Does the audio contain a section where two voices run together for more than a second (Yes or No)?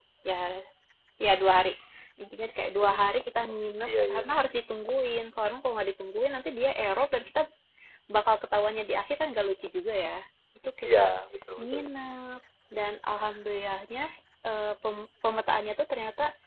Yes